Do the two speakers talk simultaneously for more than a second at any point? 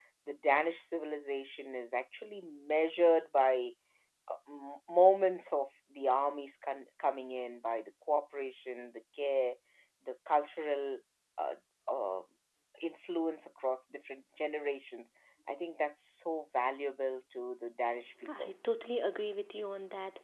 No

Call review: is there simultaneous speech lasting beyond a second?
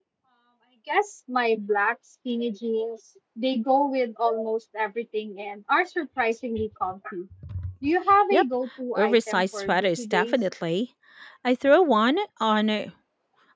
Yes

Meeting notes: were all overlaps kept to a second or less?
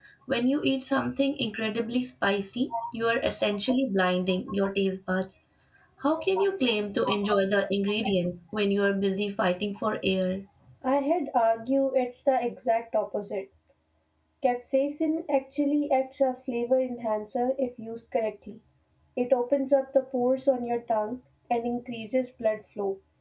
Yes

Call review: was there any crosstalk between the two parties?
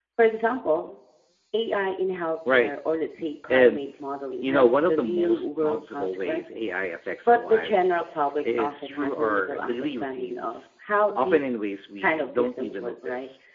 Yes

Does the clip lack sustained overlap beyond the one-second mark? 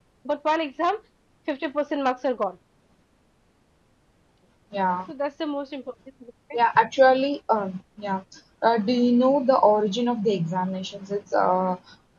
Yes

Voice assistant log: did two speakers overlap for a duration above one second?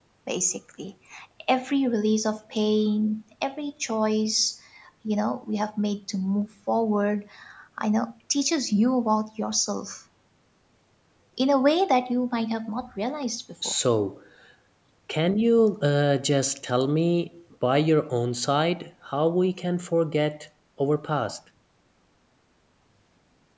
No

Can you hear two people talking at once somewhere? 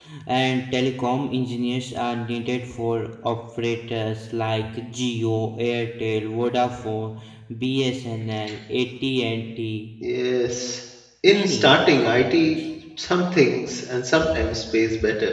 Yes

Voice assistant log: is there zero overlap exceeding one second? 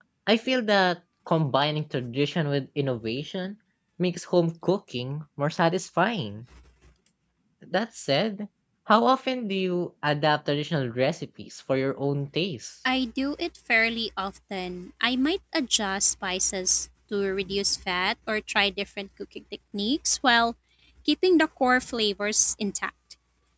Yes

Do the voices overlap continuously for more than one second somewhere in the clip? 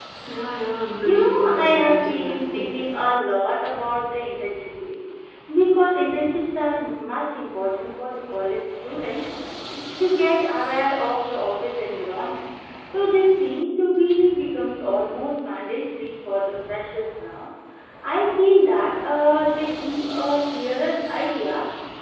Yes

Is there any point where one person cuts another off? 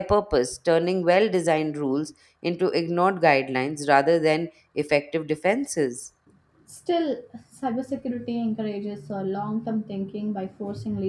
No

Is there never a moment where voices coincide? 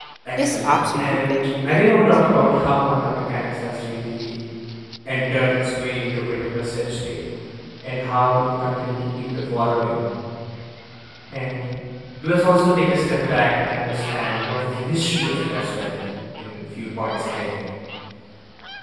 No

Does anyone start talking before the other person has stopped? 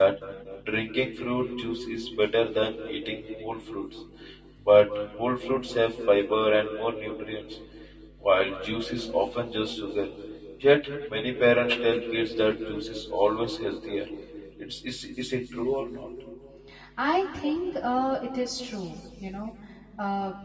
No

